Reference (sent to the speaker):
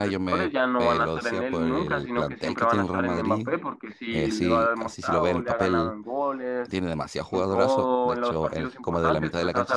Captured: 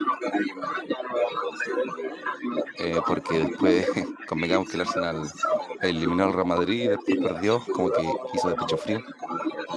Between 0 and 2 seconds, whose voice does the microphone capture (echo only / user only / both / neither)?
echo only